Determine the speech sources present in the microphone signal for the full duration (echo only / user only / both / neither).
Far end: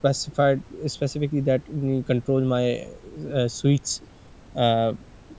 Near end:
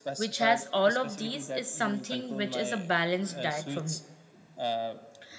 both